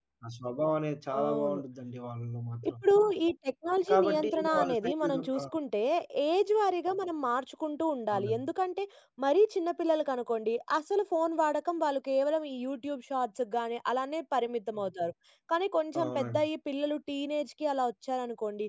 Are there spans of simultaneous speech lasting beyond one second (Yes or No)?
Yes